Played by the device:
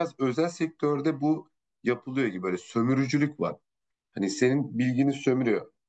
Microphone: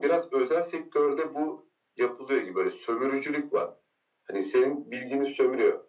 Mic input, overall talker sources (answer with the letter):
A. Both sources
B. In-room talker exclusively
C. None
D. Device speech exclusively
D